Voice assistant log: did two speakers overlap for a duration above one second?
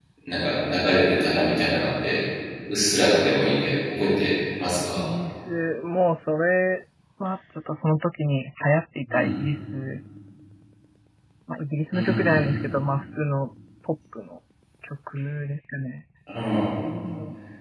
No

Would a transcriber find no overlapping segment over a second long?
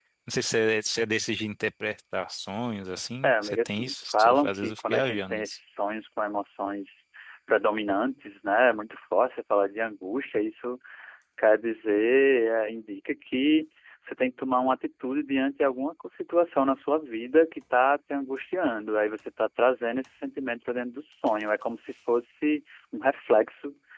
No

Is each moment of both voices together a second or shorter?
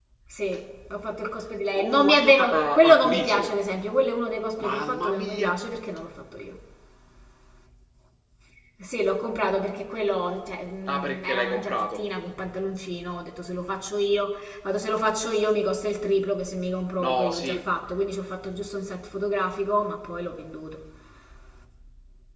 No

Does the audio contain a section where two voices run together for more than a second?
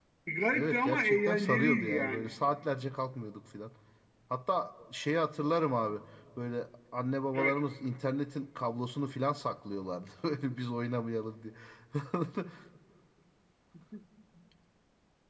Yes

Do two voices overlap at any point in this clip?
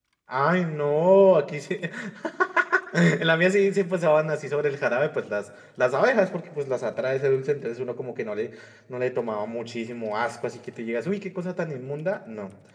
No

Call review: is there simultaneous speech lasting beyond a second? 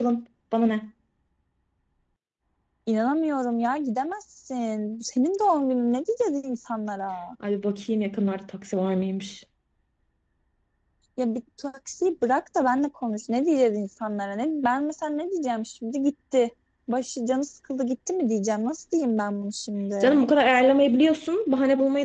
No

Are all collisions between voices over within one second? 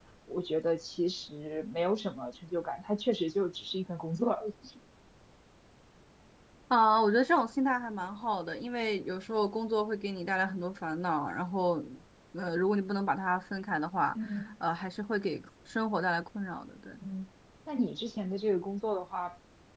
Yes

